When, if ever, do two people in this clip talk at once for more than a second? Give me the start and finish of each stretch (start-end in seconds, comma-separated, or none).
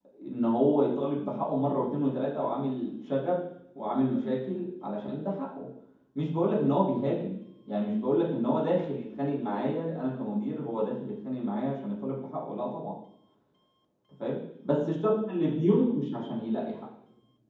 none